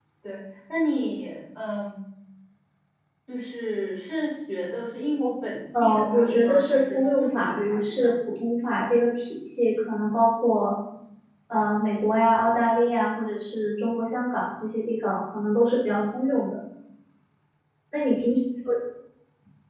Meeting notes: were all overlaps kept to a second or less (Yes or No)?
No